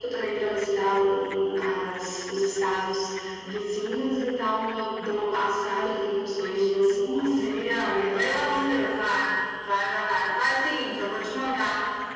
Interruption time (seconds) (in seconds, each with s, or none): 6.9 s